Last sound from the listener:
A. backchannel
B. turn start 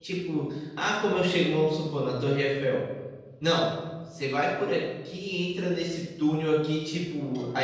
A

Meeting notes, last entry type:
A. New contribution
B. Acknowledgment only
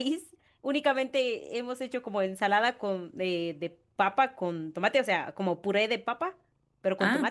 B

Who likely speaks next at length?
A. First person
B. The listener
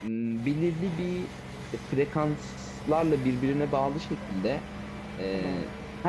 A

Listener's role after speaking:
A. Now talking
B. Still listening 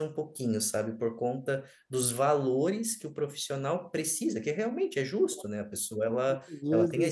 B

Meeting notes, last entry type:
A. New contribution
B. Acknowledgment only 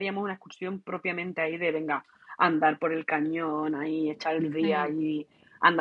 B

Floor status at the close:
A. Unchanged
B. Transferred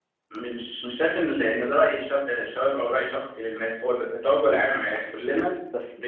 B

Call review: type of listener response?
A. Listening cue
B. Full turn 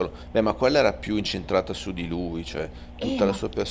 B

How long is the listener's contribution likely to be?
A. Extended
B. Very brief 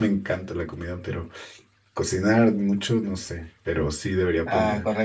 A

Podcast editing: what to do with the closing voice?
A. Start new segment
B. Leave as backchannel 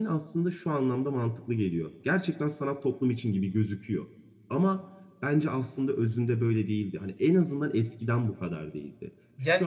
A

